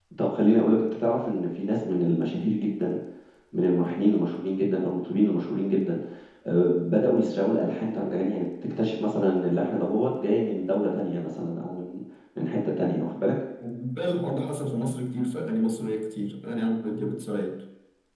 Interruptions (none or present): none